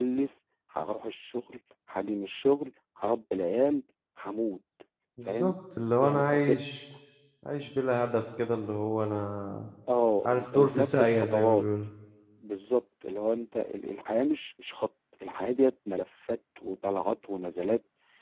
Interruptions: present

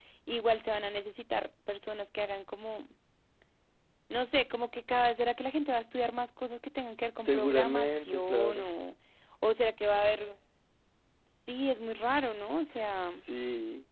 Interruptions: present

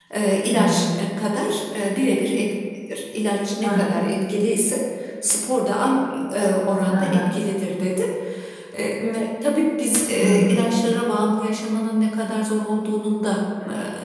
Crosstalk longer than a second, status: none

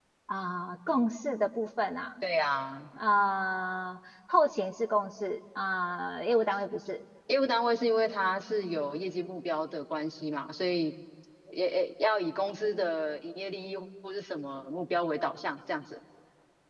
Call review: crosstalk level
none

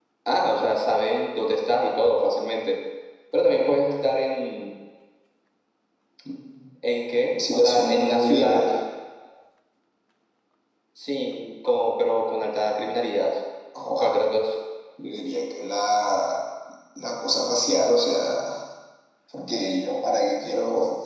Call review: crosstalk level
present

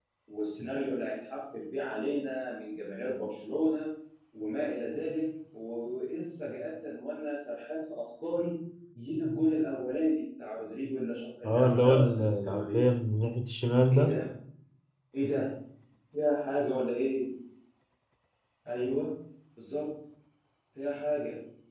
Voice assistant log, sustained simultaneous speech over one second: present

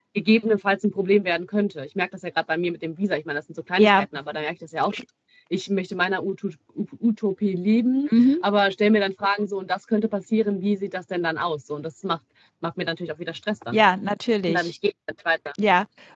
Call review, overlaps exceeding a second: none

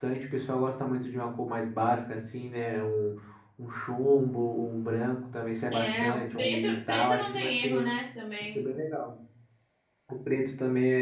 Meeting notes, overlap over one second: present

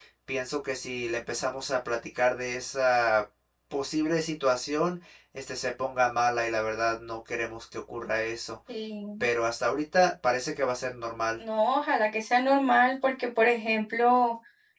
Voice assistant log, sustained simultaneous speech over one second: none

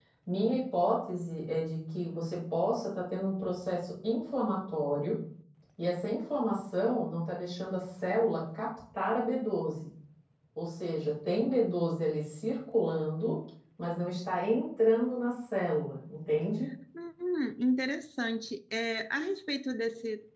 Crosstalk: none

